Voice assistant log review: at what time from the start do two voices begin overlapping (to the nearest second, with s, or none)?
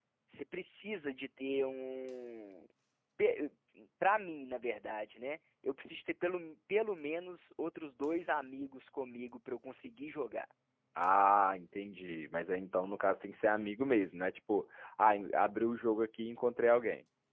none